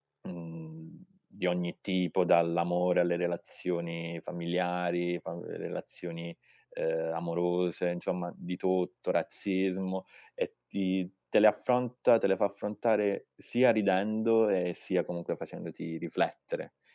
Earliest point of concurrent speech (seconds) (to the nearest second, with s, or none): none